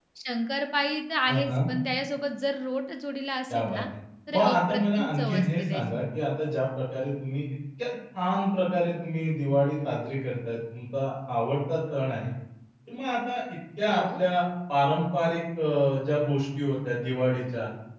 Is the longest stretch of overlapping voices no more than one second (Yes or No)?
No